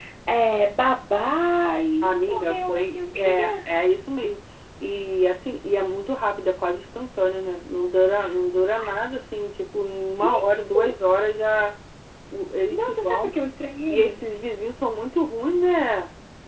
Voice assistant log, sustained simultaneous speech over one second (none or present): present